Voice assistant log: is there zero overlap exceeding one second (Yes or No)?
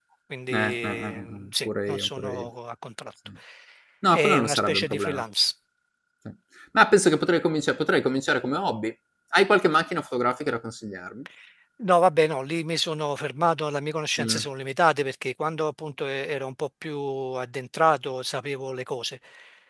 No